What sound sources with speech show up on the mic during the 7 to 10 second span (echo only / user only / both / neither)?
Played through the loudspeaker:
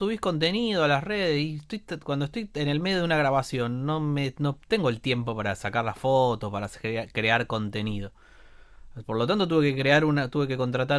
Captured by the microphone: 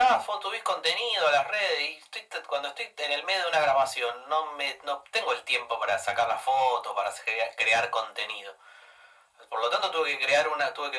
echo only